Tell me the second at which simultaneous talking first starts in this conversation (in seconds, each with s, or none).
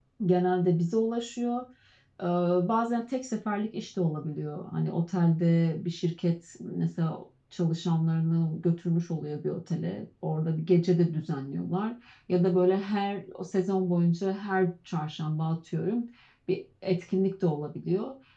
none